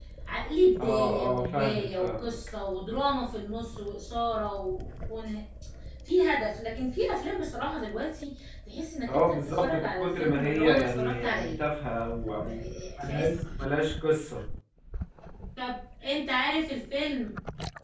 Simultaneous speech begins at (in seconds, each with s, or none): 0.8 s